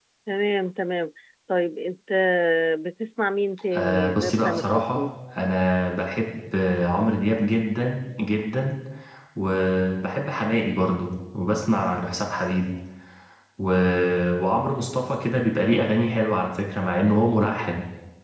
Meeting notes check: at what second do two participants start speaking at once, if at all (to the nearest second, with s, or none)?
4 s